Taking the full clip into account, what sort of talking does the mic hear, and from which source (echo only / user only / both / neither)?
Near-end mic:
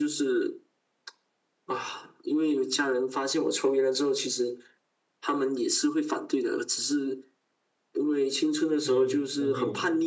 both